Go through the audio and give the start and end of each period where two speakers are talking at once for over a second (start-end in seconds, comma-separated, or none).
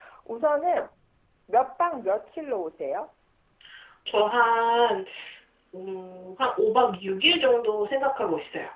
none